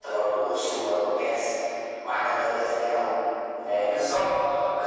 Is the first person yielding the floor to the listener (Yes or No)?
Yes